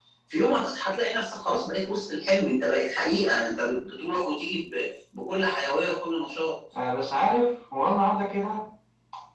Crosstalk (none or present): none